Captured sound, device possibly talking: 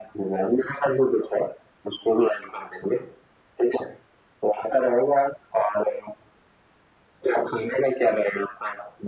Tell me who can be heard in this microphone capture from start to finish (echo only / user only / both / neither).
echo only